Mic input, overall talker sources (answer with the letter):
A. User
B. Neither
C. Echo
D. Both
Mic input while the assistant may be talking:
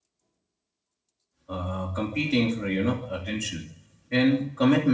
A